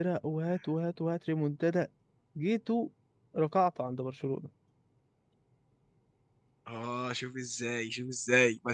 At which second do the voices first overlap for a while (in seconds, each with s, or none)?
none